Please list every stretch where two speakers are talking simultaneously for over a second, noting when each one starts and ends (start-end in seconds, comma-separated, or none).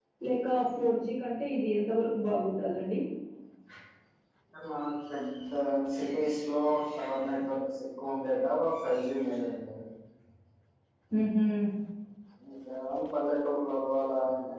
none